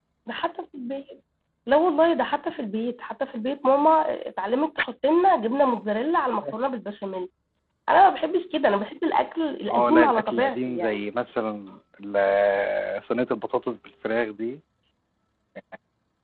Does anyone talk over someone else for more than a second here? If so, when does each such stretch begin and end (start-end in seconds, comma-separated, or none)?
9.7-11.0